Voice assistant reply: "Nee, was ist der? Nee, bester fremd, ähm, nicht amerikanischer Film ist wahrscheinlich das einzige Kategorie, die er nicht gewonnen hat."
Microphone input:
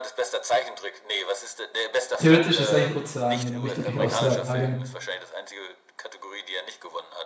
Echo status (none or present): present